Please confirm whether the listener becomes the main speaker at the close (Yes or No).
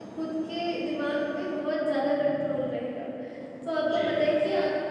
No